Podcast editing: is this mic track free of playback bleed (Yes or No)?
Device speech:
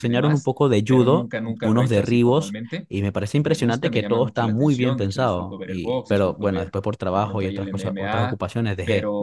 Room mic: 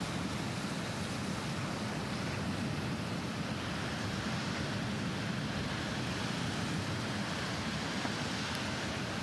Yes